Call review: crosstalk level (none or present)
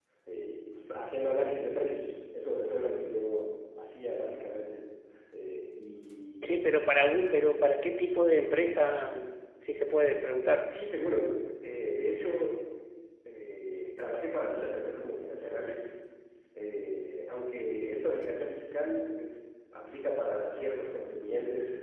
none